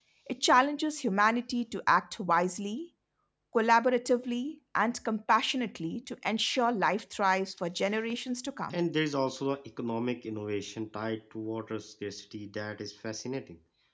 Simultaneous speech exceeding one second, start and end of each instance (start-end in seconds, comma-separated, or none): none